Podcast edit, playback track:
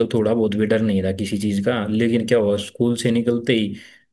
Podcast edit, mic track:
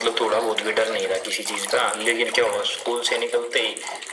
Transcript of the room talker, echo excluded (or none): none